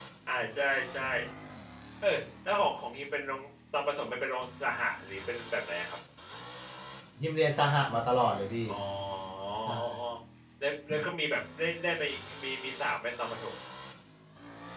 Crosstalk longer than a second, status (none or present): none